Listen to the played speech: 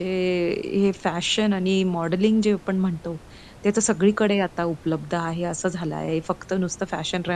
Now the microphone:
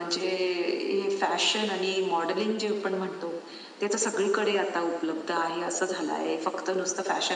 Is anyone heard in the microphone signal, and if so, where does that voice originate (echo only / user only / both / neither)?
echo only